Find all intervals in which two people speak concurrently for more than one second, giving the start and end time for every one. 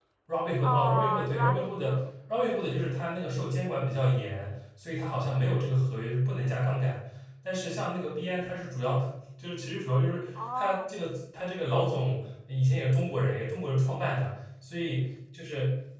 0.6-2.0

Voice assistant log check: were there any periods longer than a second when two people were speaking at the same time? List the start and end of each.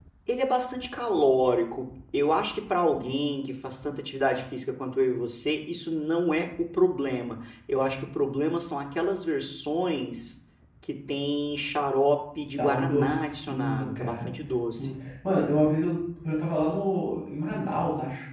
12.6-14.3

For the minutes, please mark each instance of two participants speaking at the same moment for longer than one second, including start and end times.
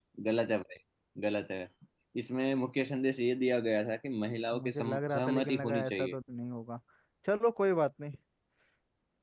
4.6-6.2

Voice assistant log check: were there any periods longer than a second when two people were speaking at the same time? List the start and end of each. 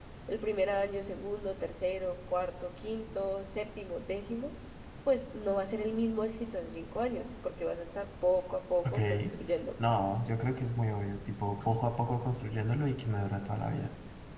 none

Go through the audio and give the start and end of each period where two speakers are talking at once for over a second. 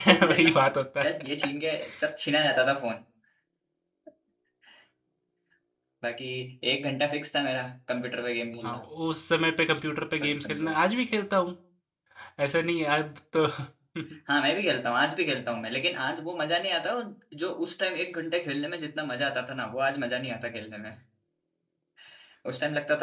none

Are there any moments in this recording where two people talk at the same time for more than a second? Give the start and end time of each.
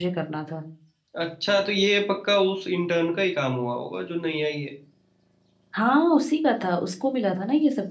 none

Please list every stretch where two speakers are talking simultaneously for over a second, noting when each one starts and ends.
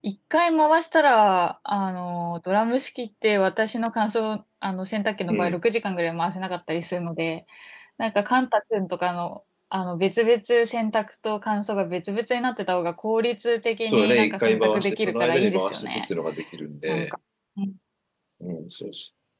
13.9-16.1

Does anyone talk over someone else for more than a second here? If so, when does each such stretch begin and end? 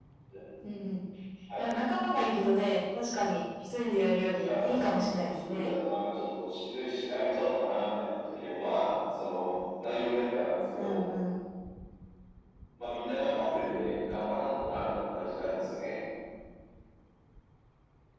4.4-5.7

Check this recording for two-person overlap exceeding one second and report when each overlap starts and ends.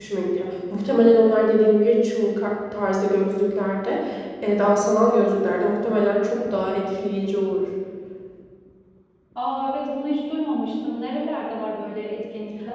none

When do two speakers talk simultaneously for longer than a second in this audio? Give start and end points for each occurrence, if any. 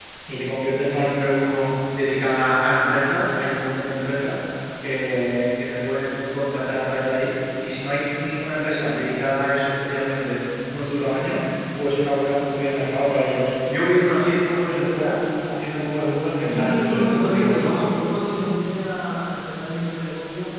16.4-17.6

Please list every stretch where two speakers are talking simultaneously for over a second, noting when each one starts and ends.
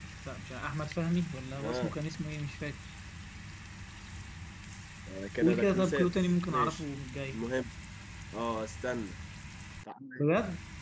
5.4-6.8

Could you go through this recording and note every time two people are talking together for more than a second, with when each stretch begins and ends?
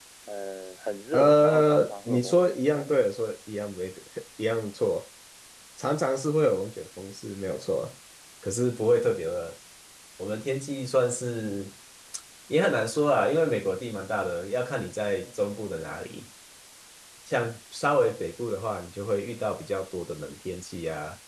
1.1-2.9

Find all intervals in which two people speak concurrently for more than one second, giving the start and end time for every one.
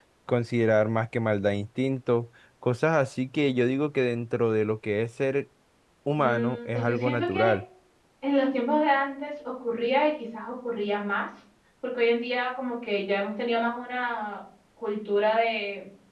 6.2-7.5

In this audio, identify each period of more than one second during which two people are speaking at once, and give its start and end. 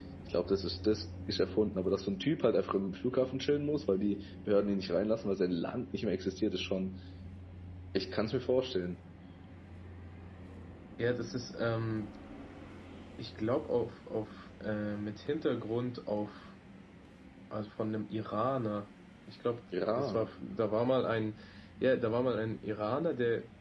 none

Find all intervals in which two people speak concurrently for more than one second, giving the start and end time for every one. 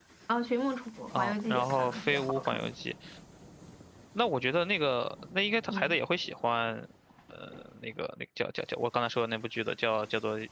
1.2-2.7

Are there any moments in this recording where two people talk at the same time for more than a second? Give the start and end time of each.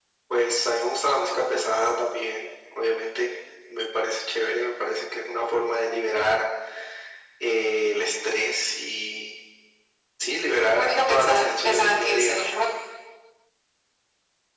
10.8-12.5

